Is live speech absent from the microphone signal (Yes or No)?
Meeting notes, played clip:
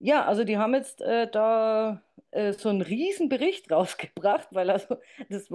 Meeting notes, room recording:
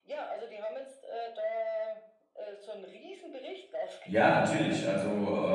No